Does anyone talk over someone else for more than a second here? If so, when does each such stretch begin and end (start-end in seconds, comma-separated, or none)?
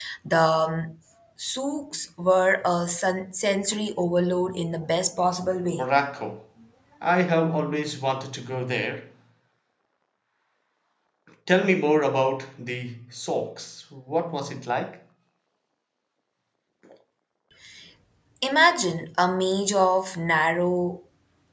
none